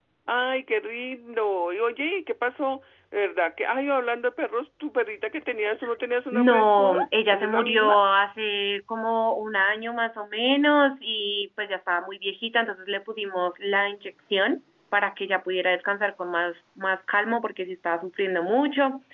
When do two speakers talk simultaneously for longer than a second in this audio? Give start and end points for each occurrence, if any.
6.3-8.0

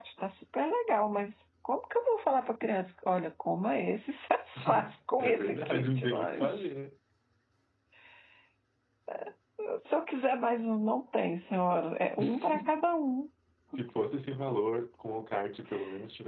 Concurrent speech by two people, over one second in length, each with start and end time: 5.2-6.7

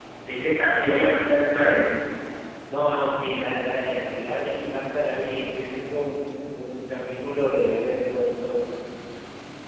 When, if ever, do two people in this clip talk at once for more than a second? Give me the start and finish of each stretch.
none

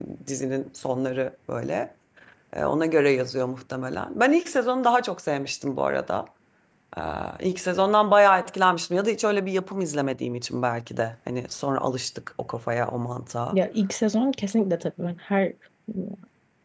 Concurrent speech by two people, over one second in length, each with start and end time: none

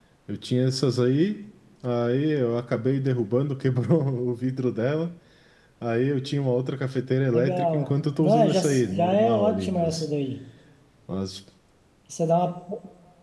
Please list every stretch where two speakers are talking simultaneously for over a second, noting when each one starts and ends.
7.3-10.1

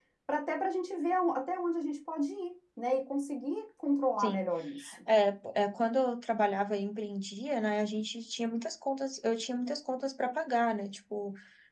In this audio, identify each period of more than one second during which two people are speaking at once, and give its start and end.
none

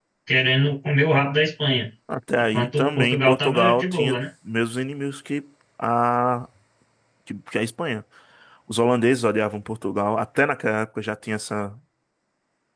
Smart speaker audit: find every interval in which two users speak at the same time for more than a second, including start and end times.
2.5-4.2

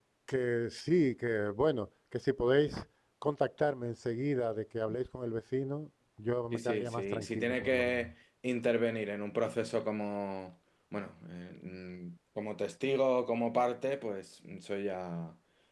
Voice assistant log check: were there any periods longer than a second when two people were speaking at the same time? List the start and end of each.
6.5-8.1

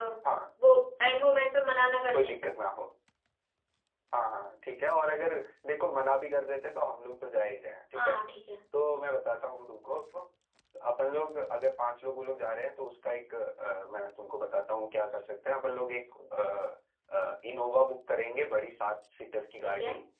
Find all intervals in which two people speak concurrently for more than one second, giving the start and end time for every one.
none

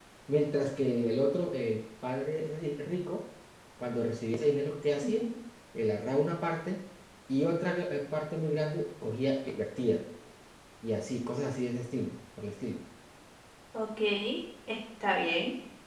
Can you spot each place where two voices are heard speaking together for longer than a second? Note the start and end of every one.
none

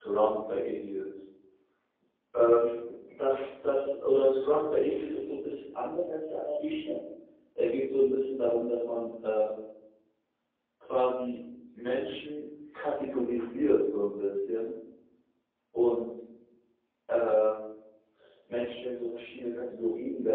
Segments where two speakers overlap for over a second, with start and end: none

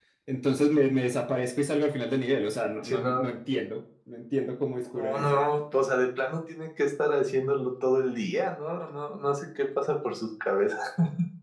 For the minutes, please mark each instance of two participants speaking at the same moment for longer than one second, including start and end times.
none

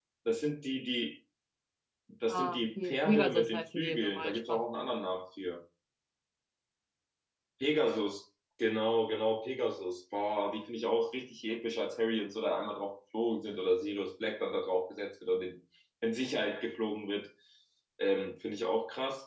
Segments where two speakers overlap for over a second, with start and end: 2.3-4.6

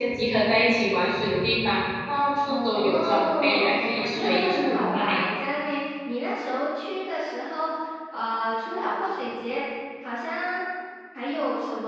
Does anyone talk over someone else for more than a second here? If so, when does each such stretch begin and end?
2.5-5.3

